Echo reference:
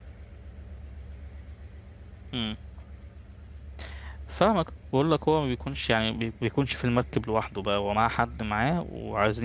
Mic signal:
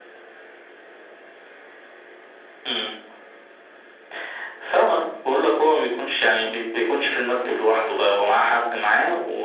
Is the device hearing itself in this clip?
Yes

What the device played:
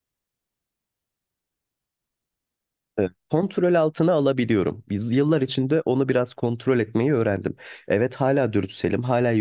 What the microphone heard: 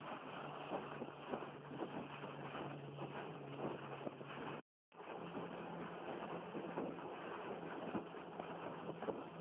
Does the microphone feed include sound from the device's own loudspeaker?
No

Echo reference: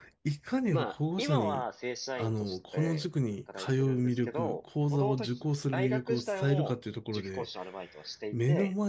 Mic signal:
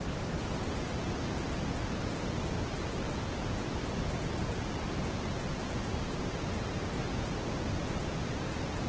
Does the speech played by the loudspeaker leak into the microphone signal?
No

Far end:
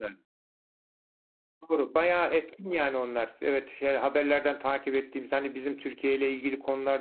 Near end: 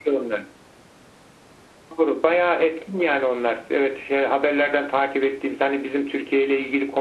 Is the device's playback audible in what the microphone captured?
Yes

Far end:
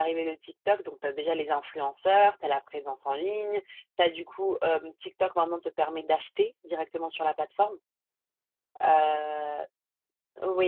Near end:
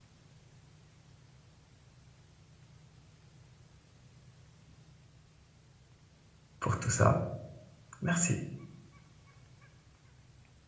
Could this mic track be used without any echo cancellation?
Yes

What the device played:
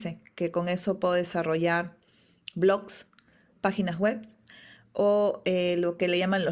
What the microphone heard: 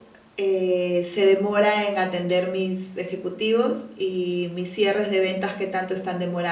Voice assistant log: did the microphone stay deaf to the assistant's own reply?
Yes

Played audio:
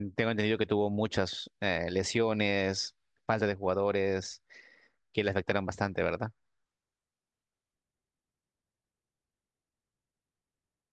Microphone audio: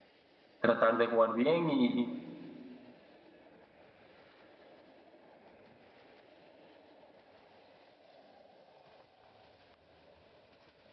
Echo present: No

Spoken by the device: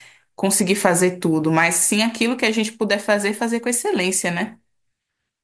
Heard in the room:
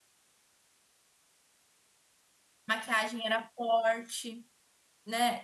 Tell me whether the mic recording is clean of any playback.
Yes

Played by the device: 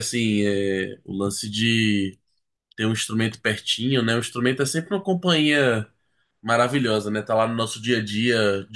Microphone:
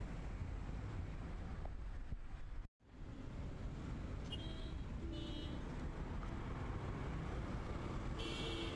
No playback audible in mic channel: Yes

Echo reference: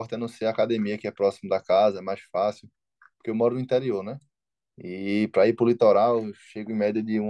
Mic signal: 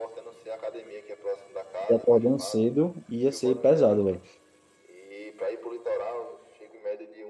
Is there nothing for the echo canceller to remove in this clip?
No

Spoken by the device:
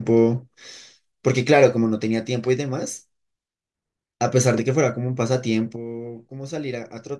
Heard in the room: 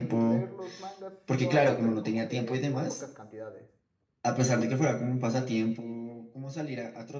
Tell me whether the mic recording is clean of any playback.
No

